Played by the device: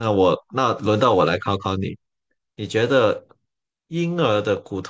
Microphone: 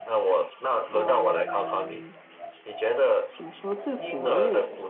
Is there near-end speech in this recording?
Yes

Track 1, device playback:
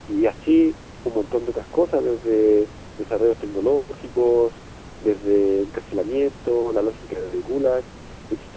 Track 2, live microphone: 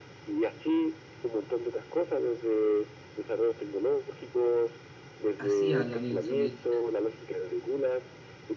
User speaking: Yes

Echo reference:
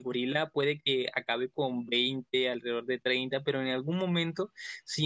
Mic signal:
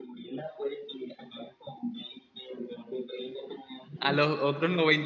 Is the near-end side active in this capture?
Yes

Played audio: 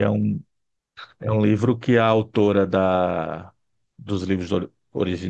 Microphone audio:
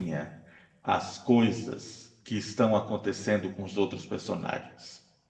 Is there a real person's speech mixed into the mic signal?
Yes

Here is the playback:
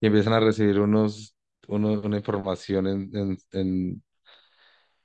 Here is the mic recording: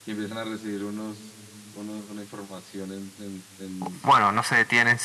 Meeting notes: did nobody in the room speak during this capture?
No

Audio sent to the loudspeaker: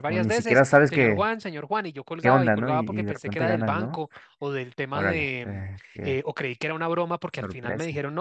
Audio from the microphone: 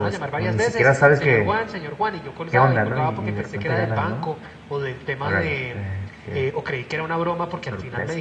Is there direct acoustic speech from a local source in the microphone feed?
No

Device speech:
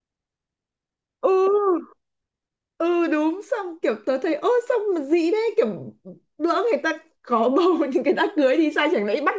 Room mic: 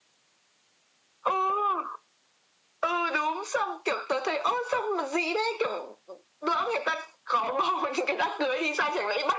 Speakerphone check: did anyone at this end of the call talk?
No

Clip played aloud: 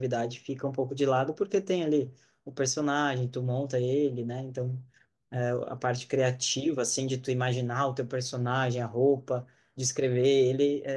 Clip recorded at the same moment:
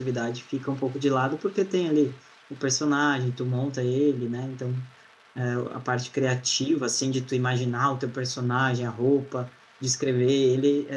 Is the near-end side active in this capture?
No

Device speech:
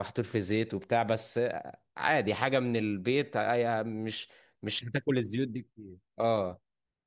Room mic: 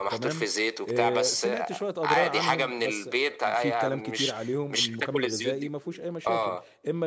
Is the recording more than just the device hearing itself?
Yes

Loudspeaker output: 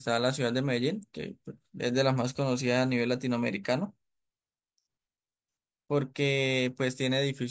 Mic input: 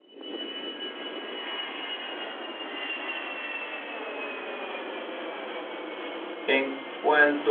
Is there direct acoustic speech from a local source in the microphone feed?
Yes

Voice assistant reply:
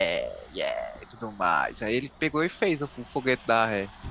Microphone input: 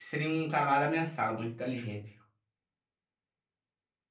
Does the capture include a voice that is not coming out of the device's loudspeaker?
Yes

